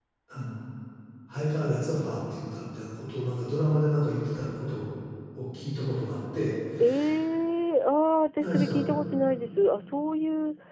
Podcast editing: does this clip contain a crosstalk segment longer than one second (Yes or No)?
No